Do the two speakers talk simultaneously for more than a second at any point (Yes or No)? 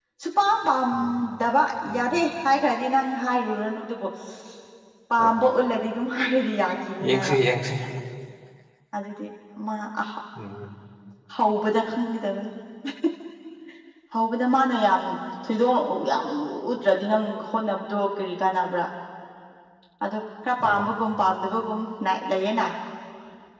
No